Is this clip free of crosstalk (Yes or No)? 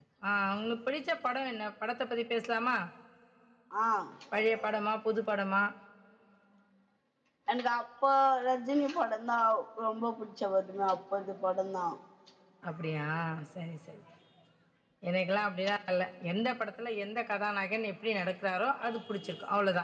Yes